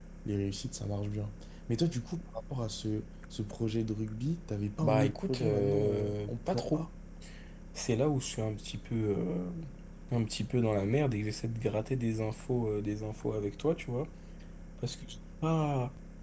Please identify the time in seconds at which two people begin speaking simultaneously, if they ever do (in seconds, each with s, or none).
4.8 s